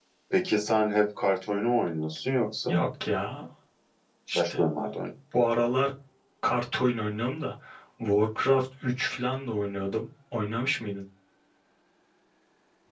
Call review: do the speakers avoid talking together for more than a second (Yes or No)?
Yes